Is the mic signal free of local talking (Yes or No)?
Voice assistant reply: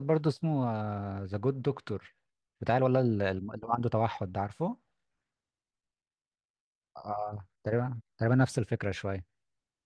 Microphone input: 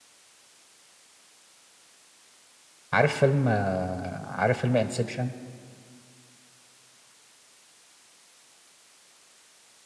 No